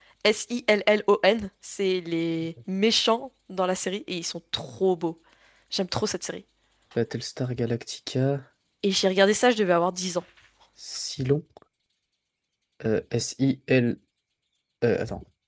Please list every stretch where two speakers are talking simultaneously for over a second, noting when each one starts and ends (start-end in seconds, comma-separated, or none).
none